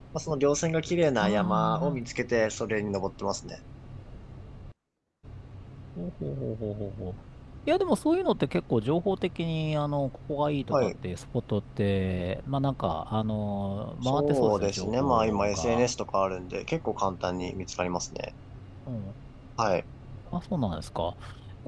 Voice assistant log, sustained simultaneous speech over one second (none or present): present